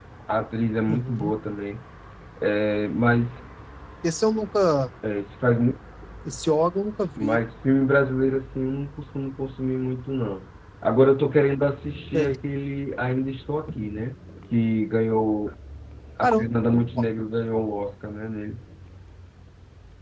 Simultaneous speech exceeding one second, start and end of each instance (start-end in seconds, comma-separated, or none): none